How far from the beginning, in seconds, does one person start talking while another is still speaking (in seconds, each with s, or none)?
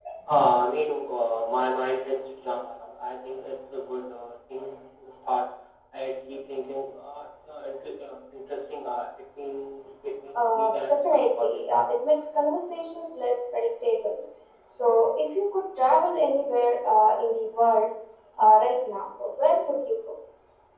10.3 s